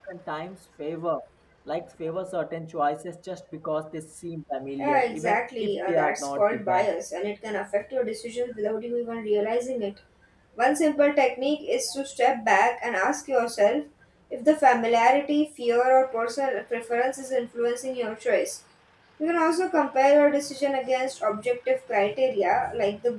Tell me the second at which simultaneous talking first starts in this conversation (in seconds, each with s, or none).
4.8 s